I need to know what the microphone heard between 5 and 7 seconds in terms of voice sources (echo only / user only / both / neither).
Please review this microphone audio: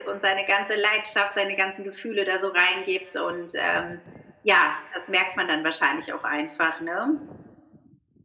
echo only